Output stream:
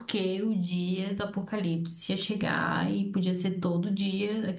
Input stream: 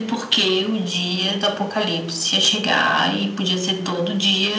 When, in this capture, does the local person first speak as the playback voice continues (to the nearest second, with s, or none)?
none